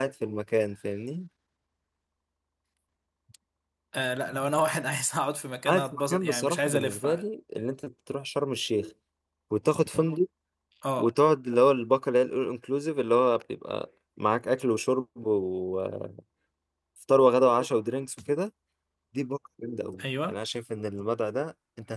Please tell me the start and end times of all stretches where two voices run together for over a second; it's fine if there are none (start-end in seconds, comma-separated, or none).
5.7-7.0